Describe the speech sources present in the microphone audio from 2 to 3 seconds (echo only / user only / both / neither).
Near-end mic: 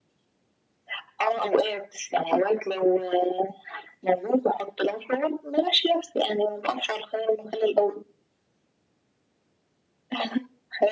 echo only